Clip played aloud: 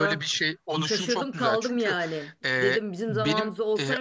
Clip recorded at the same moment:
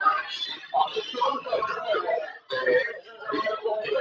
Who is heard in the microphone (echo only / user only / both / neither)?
echo only